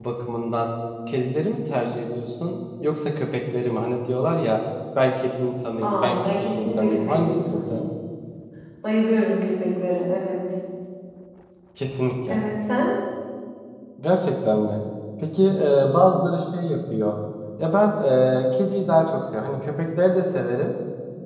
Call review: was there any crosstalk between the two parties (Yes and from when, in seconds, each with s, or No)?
Yes, from 5.8 s